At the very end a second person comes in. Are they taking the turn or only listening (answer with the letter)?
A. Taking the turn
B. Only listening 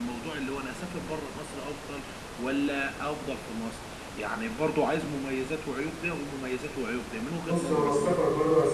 A